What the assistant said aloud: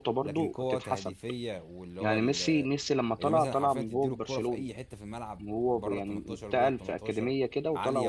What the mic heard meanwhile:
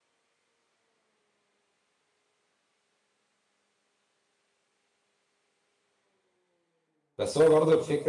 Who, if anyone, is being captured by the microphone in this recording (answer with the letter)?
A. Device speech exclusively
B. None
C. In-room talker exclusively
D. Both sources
C